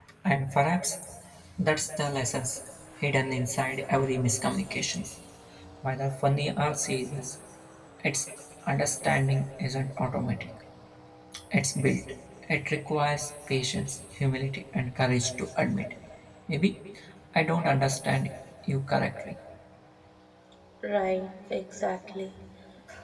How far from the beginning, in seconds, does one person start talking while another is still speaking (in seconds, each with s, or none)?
none